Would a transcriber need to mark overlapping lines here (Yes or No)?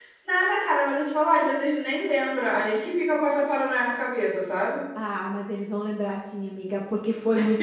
No